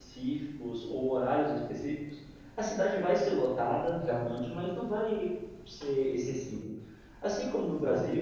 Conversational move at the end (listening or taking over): listening